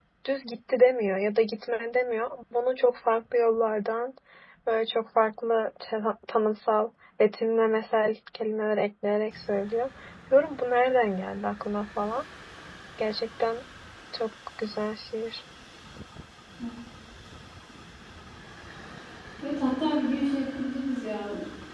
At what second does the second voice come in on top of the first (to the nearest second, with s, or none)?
none